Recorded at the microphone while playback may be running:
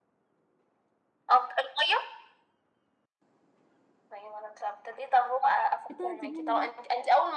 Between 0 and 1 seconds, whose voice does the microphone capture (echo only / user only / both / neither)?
neither